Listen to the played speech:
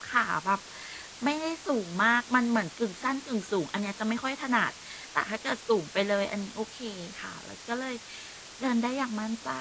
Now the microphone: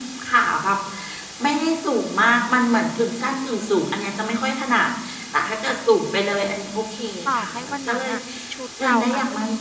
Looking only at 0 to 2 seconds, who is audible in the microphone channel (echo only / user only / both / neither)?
echo only